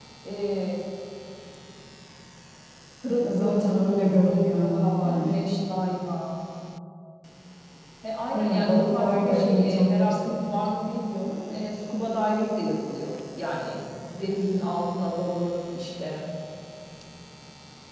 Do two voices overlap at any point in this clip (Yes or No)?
Yes